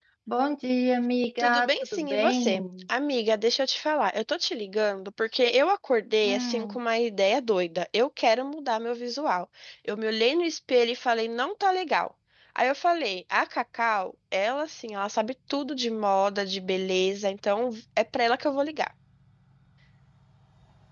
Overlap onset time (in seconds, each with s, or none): 1.4 s